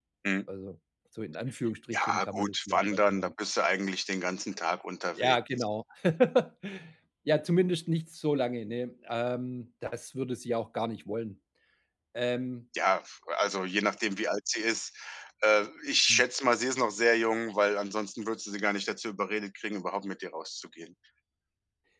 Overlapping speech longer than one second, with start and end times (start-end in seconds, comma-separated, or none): 1.9-3.3